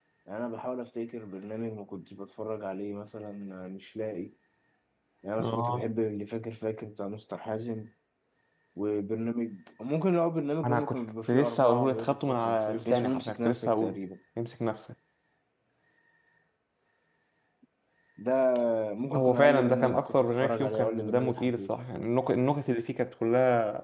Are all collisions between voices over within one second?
No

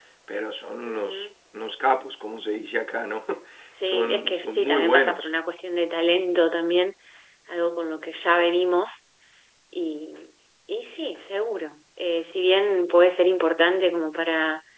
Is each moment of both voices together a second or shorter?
No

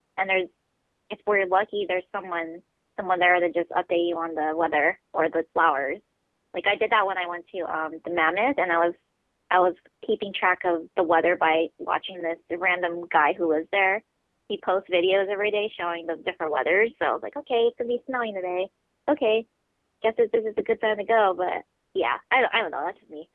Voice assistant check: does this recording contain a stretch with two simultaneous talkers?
No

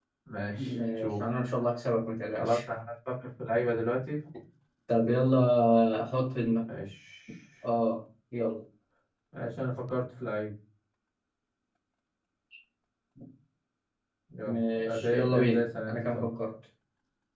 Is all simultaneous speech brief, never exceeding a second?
No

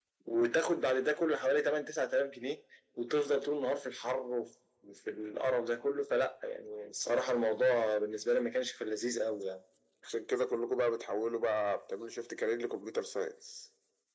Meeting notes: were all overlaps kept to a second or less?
Yes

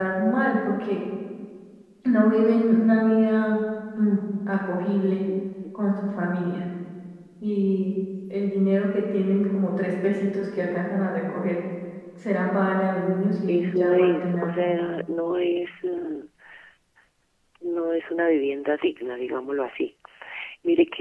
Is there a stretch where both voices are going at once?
Yes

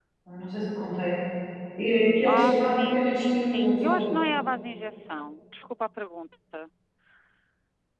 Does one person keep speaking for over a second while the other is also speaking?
Yes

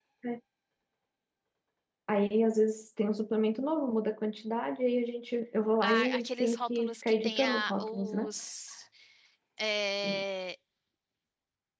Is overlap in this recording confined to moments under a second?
No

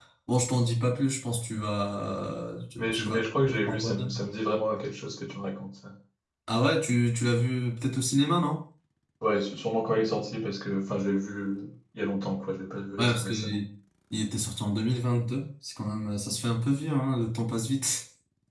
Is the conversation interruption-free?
No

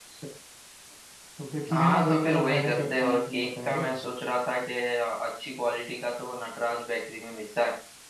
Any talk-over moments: Yes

